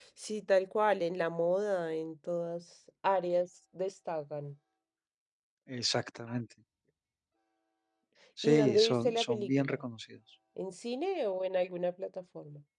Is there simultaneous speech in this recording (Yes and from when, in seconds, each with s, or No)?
Yes, from 8.4 s